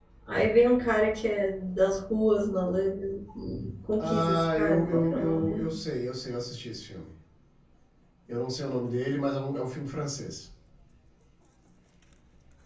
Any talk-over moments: Yes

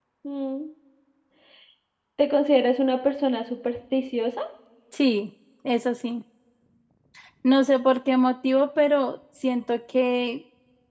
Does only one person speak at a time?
Yes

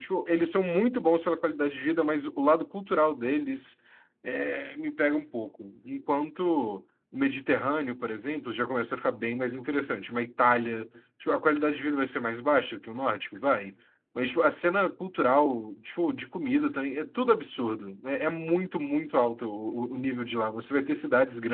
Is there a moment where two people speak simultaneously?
No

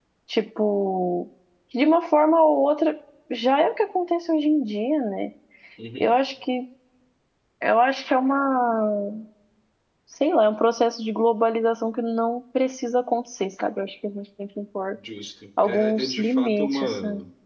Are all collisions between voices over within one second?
No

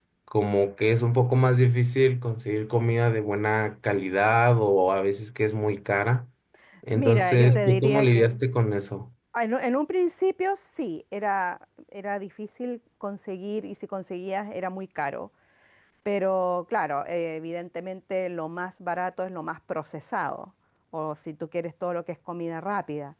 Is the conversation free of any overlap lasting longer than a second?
No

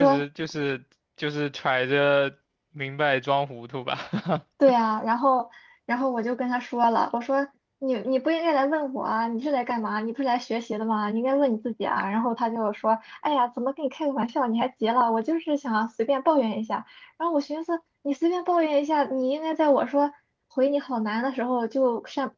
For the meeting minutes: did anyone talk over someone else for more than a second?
No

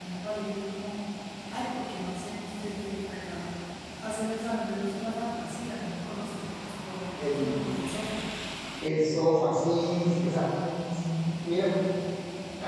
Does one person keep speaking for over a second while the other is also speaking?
No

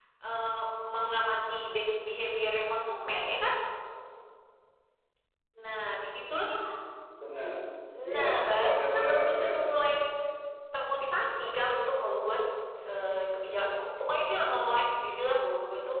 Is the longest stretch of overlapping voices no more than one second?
No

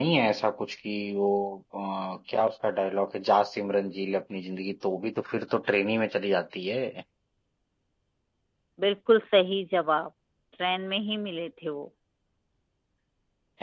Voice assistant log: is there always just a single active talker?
Yes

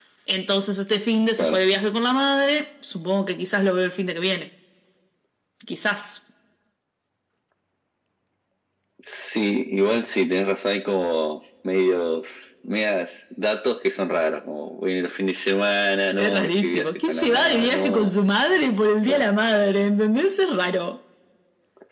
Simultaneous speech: Yes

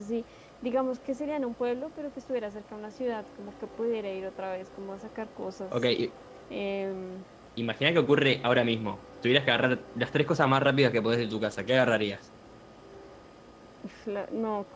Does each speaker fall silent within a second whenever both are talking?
Yes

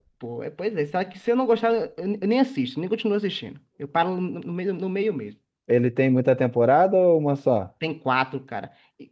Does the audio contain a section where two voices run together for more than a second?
No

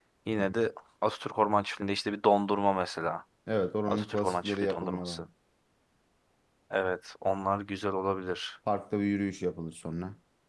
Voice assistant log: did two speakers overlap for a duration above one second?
Yes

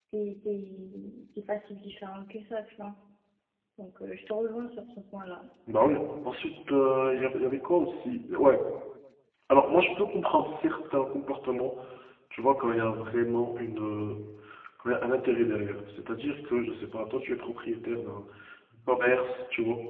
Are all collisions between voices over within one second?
Yes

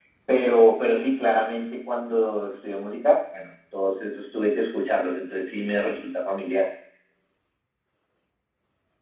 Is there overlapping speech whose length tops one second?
No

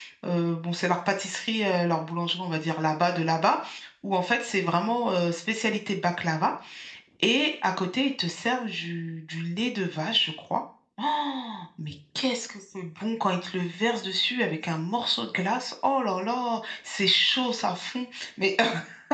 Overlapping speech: No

